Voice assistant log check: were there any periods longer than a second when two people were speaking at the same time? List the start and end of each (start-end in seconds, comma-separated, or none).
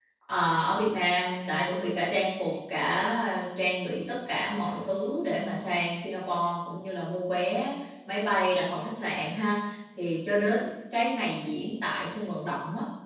none